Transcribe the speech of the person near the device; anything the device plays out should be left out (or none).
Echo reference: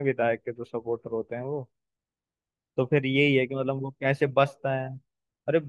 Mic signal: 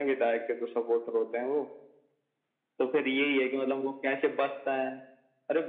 none